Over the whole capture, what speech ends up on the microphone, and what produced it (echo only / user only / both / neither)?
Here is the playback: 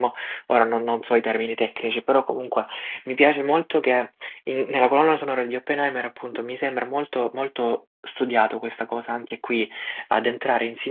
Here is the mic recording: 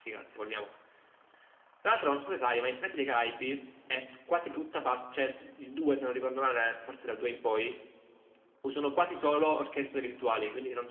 user only